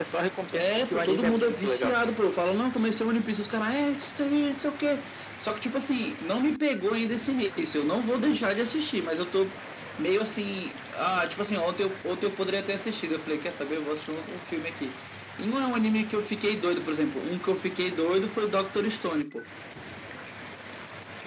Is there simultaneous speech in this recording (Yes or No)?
Yes